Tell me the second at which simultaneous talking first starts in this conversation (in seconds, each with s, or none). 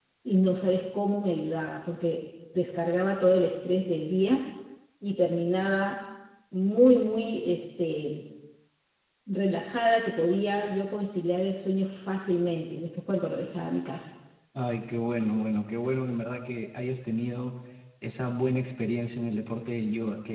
none